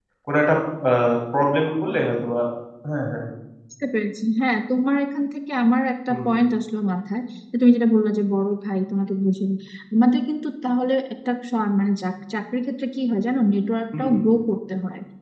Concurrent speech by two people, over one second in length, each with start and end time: none

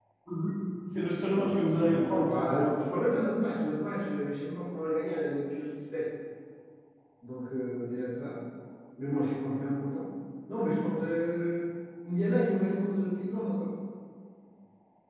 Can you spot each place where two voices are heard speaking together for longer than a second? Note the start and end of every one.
1.3-3.1

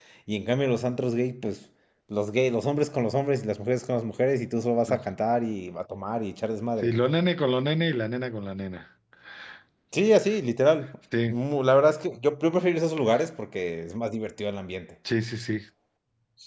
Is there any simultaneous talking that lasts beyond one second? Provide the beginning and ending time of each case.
none

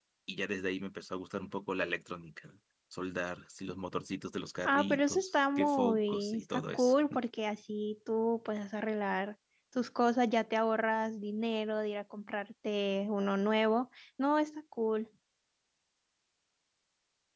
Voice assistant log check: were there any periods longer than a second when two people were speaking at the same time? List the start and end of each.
4.6-6.9

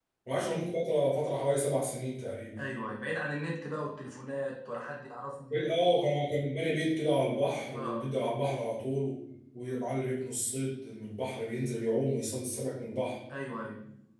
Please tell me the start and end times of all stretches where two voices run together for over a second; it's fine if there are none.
none

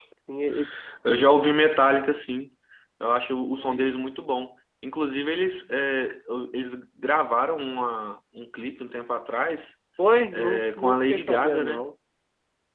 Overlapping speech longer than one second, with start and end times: 10.3-11.9

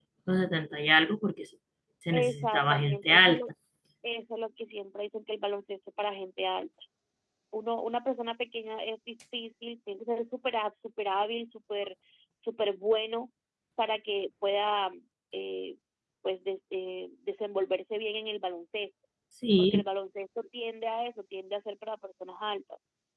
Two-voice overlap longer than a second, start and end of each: 2.1-3.4

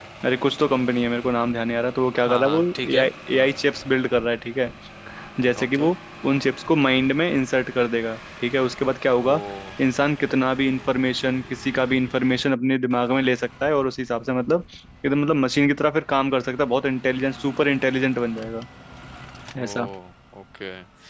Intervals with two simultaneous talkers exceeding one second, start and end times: 2.3-3.5

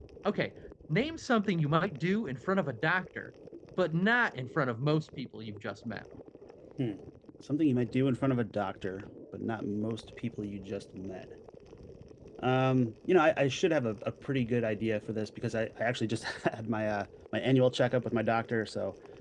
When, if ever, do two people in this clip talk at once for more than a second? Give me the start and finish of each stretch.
none

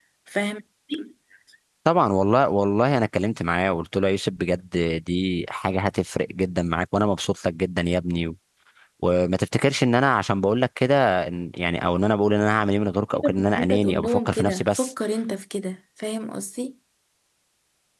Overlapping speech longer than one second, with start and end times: 13.1-14.9

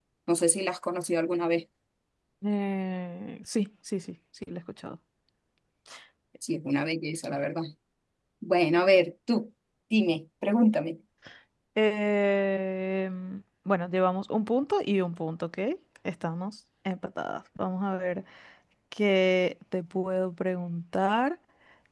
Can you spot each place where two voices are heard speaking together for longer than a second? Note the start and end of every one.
none

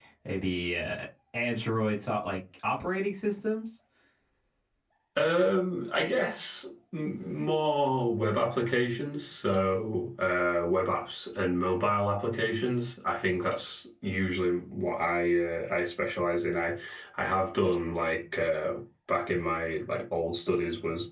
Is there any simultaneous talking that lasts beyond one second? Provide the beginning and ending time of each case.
none

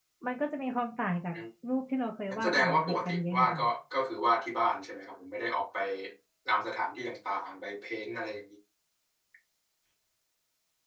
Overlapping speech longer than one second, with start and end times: 2.3-3.6

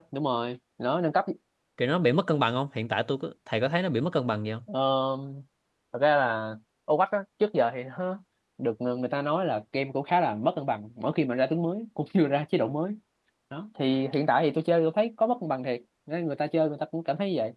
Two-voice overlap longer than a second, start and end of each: none

